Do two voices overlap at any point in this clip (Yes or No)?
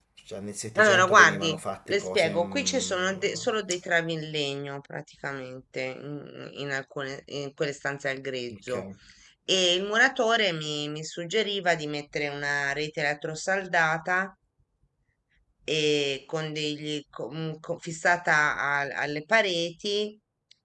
Yes